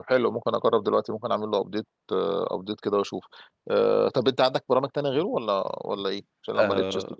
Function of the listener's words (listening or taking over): taking over